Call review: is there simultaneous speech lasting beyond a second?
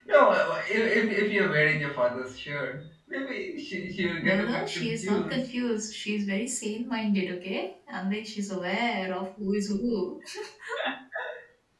Yes, from 4.2 s

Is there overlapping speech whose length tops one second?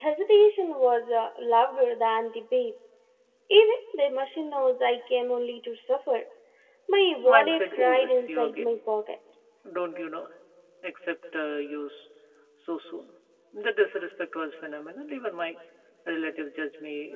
Yes, from 7.2 s

